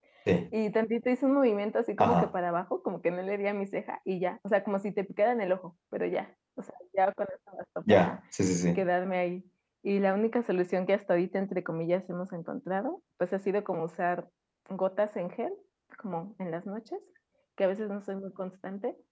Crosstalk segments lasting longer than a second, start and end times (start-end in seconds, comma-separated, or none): none